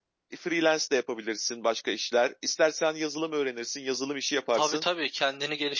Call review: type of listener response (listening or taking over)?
taking over